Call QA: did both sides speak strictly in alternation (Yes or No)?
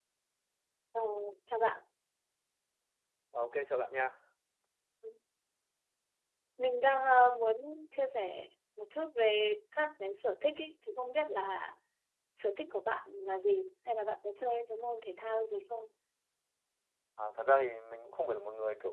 Yes